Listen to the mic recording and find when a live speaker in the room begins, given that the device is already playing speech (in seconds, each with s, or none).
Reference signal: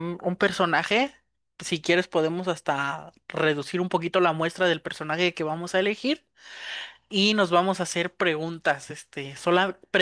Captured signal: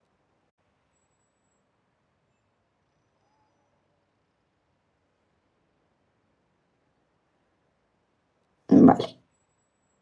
8.7 s